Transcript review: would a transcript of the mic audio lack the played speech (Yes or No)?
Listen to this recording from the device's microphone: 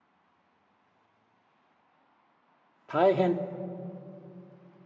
Yes